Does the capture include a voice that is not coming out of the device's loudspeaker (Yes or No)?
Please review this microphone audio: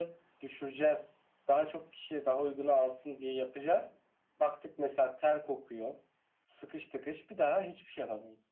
No